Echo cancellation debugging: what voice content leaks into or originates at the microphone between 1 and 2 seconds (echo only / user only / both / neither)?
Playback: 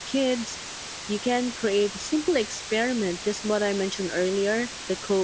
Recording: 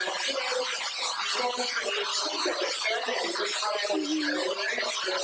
echo only